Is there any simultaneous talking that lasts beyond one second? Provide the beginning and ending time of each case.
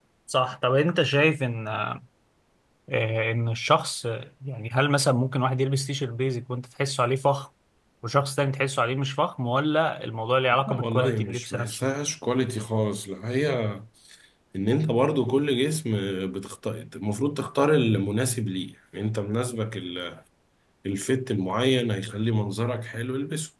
10.7-11.9

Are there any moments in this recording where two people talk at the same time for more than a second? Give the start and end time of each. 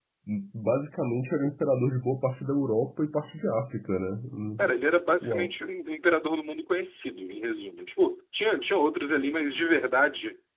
none

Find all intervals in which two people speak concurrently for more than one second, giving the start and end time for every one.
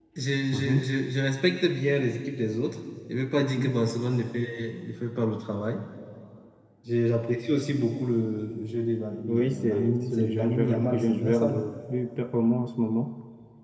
9.3-11.7

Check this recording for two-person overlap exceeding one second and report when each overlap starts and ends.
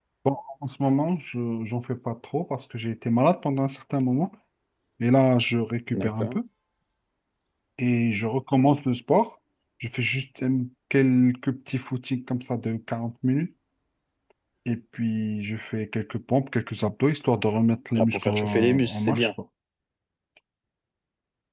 18.0-19.3

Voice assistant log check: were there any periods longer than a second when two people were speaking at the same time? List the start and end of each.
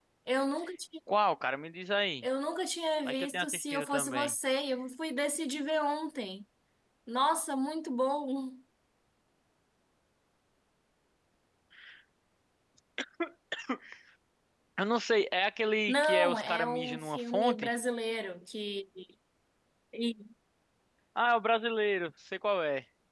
3.0-4.3, 15.9-17.7

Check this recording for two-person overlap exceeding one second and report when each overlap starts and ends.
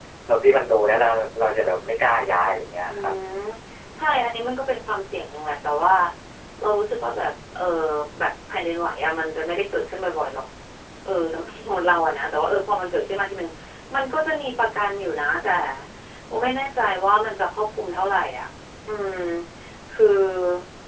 none

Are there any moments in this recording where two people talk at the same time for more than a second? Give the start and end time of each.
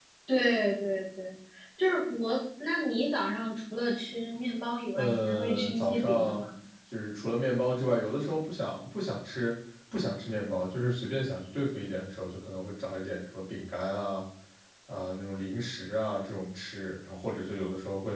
4.9-6.4

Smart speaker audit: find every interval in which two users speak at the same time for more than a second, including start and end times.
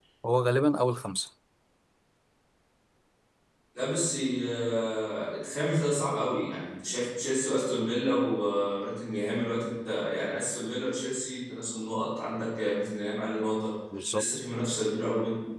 none

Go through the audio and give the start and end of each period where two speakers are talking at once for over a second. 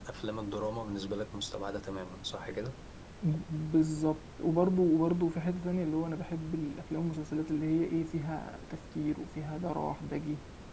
none

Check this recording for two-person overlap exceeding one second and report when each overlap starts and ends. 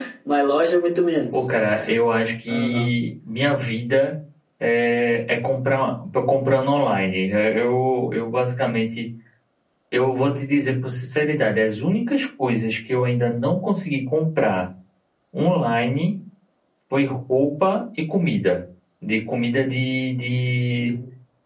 none

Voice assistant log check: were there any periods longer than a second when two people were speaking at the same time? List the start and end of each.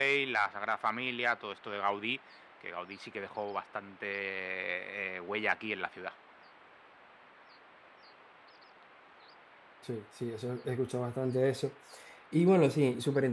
none

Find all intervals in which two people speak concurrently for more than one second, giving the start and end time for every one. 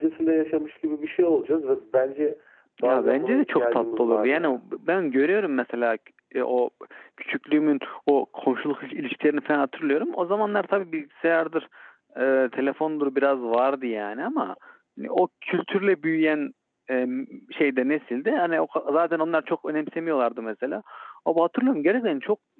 2.8-4.6

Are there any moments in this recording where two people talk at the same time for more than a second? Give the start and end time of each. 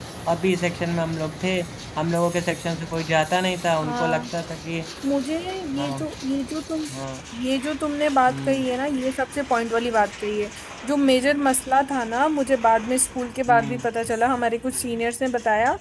none

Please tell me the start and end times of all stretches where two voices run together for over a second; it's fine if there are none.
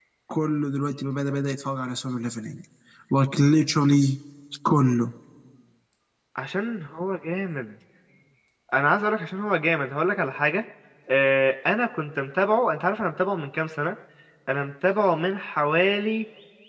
none

